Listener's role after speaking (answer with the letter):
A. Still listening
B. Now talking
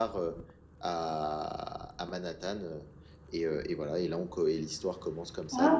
A